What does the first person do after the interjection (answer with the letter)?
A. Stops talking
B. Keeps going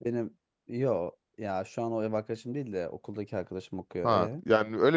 A